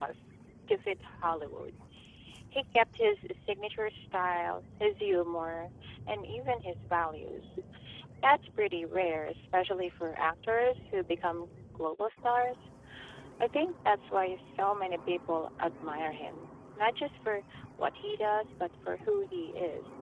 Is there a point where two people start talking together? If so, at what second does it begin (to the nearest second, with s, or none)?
none